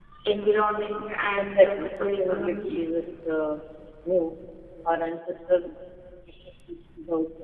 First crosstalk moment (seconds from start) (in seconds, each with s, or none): 1.4 s